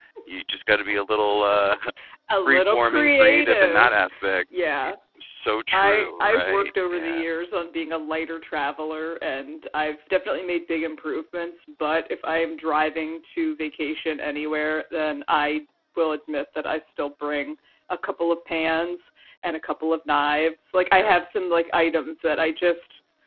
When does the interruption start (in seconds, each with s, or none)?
2.4 s